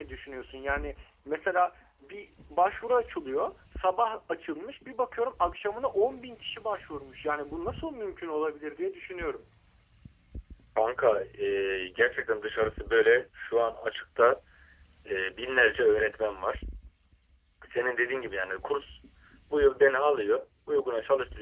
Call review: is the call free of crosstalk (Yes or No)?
Yes